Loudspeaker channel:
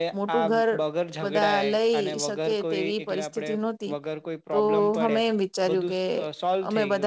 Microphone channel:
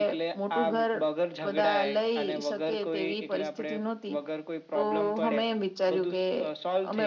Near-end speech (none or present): none